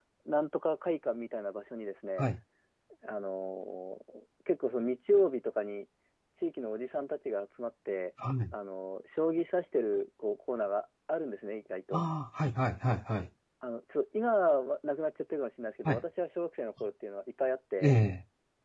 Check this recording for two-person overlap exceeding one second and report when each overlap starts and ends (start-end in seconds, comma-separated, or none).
none